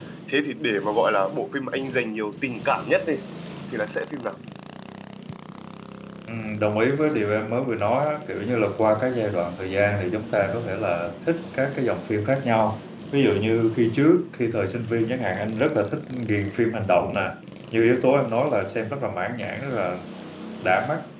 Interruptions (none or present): none